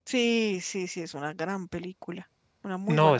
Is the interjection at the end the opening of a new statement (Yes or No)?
Yes